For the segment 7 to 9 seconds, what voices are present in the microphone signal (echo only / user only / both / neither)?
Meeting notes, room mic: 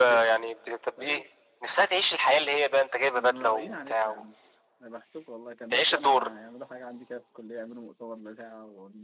user only